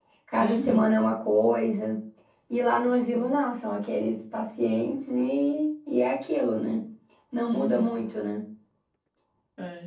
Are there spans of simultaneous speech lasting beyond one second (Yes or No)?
No